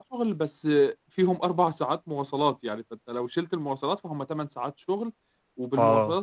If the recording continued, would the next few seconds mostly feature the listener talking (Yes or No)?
No